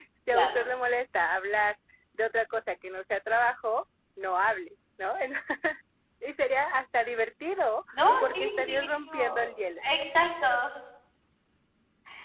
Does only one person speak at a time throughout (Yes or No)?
No